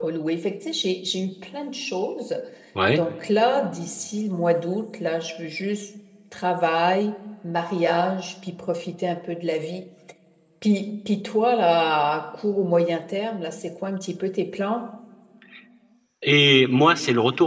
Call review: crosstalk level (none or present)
none